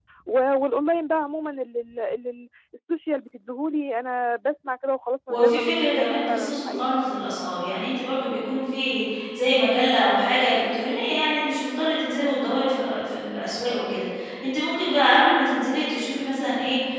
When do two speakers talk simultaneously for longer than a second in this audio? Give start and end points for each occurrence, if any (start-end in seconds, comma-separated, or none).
5.3-7.0